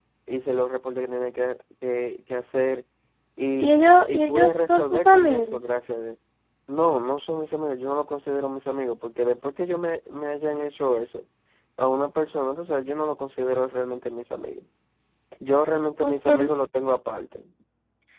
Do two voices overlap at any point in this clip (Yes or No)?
Yes